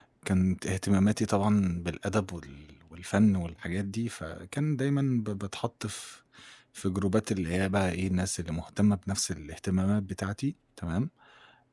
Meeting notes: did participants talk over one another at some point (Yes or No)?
No